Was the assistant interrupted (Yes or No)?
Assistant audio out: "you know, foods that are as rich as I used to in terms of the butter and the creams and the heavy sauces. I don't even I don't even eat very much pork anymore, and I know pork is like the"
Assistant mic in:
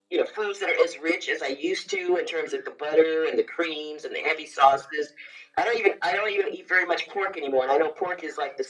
No